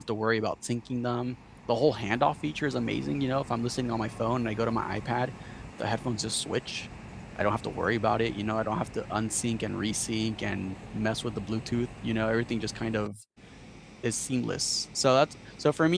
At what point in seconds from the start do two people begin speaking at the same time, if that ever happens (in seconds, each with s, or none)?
none